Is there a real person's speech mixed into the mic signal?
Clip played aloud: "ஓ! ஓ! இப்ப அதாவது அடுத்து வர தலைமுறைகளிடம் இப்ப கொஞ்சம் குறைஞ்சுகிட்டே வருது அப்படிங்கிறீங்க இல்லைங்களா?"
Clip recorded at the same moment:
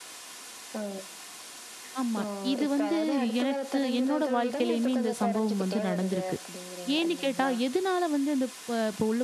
Yes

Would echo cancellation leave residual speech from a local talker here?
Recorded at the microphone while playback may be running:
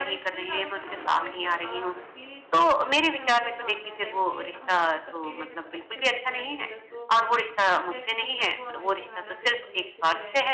Yes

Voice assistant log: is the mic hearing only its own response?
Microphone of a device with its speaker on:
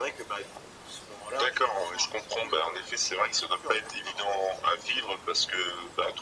Yes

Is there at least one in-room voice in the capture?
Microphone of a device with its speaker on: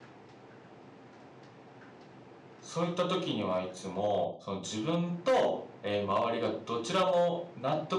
Yes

